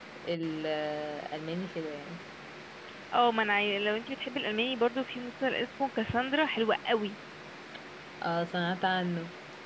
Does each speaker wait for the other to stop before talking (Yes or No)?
Yes